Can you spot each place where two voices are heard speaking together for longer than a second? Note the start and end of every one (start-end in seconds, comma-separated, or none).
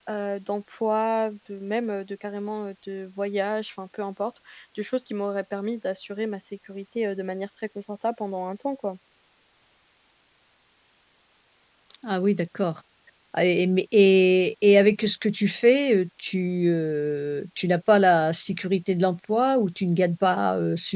none